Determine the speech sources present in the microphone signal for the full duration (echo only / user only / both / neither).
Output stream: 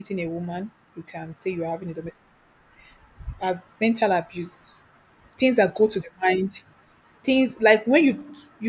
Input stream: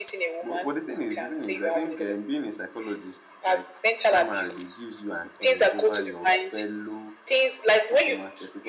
both